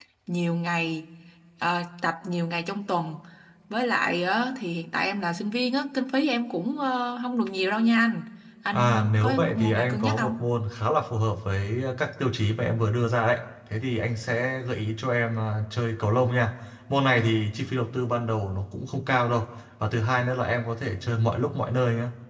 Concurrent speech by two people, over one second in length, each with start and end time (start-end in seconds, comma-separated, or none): 8.7-10.4